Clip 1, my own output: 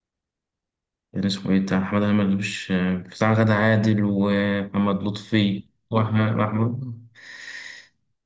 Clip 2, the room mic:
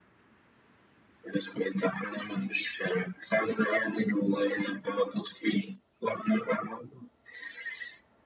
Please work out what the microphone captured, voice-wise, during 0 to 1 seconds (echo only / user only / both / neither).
neither